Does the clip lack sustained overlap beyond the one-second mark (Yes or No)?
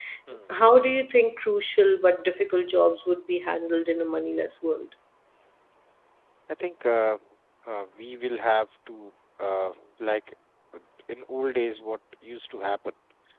Yes